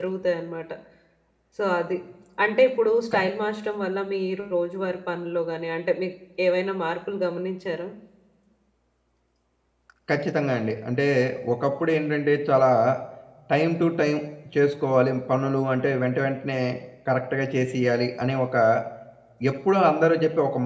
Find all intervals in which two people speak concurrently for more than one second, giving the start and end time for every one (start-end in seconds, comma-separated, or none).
none